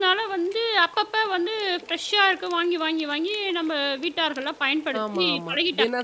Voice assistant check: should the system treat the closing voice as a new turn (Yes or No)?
Yes